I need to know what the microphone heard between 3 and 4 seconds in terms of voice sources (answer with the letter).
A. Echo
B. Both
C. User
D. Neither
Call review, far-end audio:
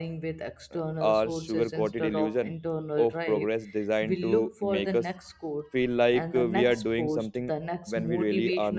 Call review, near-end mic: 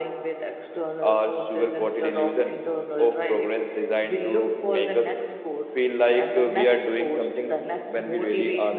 A